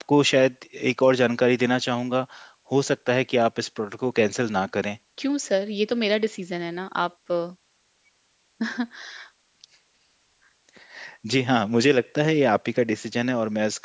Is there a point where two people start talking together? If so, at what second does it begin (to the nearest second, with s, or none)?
none